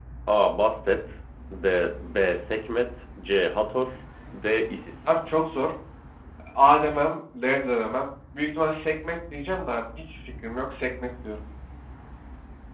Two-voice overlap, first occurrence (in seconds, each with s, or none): none